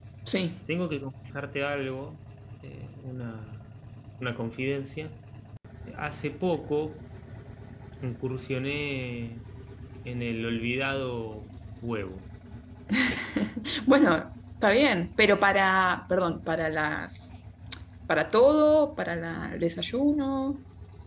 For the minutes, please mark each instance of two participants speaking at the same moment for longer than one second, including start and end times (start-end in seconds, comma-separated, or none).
none